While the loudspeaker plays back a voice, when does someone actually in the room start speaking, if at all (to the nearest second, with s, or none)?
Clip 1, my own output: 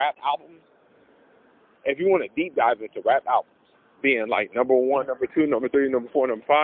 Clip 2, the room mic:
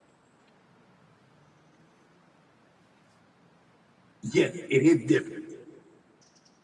4 s